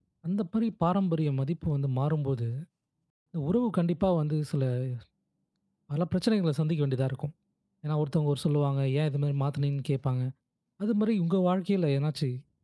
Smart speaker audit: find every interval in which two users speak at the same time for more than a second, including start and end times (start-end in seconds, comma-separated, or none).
none